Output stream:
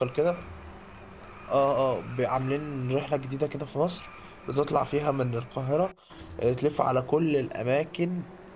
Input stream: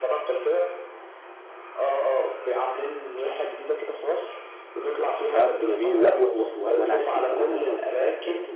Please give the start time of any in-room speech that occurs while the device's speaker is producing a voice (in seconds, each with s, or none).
5.3 s